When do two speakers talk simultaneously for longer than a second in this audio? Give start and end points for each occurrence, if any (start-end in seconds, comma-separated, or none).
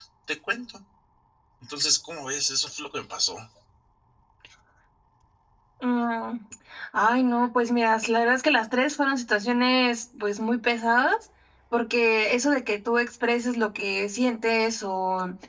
none